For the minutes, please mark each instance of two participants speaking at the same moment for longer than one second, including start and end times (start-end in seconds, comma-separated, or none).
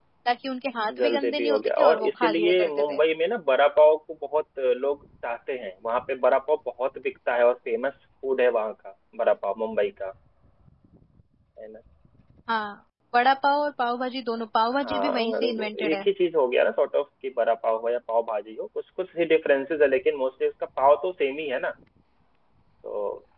1.0-3.0, 14.8-16.1